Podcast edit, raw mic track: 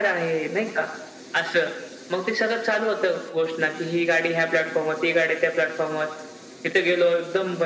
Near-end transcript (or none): none